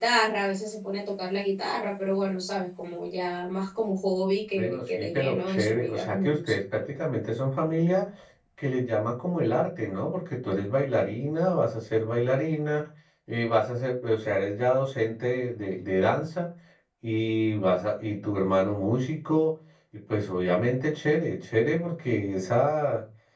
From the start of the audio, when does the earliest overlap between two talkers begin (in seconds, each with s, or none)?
4.6 s